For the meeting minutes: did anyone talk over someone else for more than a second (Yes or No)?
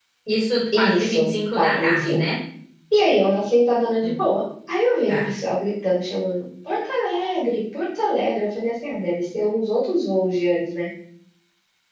Yes